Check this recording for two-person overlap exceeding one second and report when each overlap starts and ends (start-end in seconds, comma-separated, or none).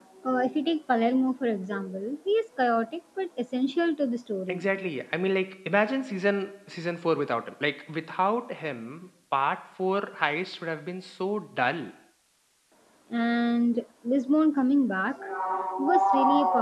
none